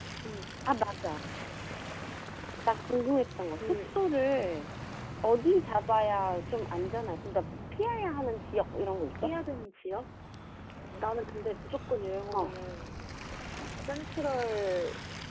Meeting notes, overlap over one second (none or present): none